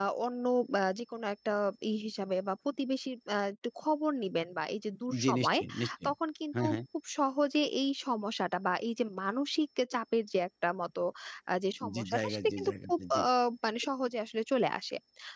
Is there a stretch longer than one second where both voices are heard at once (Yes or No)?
Yes